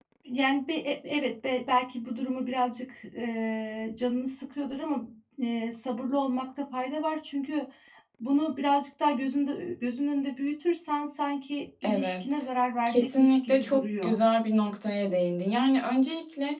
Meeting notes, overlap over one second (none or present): present